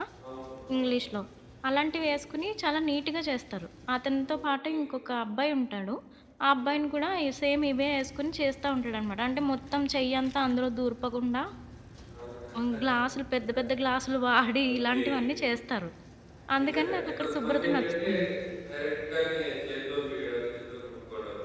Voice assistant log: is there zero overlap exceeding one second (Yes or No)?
No